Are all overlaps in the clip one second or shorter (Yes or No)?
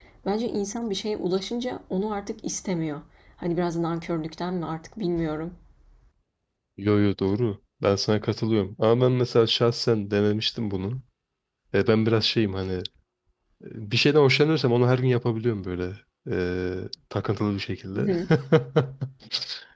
Yes